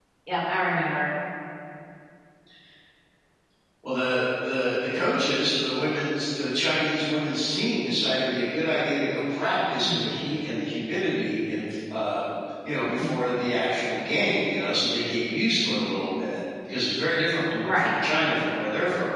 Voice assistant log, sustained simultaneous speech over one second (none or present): none